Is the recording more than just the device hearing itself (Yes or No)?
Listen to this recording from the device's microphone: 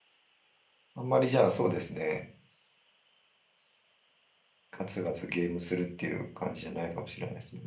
Yes